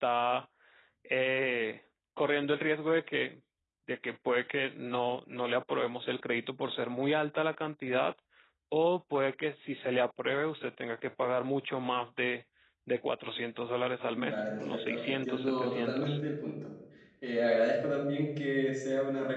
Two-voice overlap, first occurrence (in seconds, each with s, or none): 14.1 s